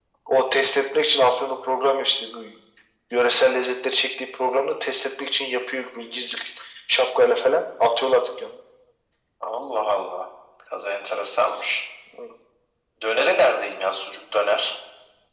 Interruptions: none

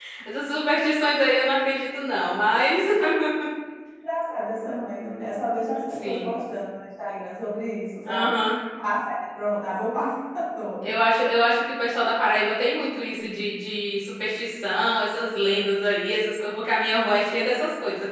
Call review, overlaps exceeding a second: none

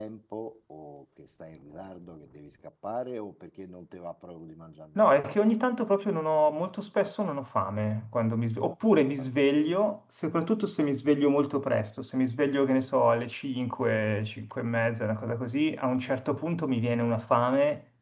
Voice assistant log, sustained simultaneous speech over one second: none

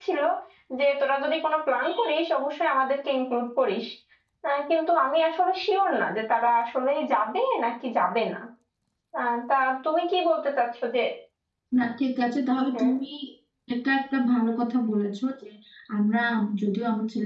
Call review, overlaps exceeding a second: none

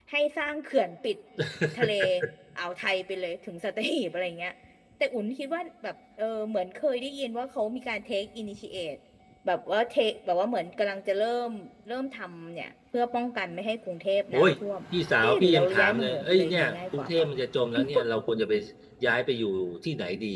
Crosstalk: present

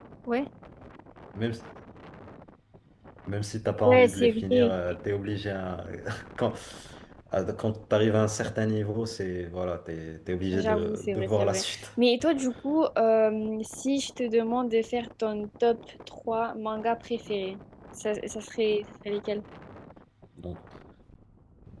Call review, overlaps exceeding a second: present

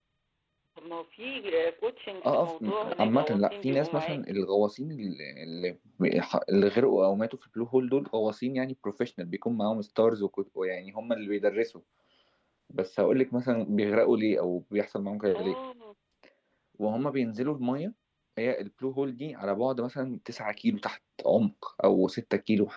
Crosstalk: present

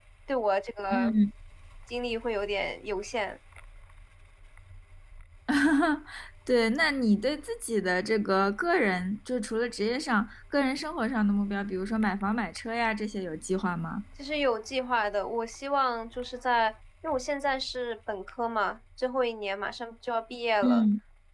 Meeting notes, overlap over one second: none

